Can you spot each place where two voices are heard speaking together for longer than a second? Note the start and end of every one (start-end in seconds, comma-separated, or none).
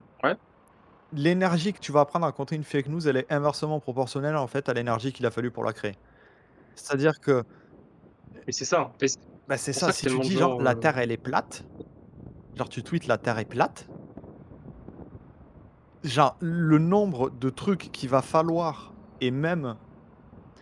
9.8-11.0